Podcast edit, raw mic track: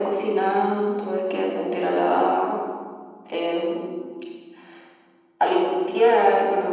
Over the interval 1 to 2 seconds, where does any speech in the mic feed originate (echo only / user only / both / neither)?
echo only